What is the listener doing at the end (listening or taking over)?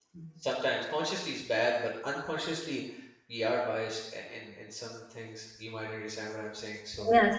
taking over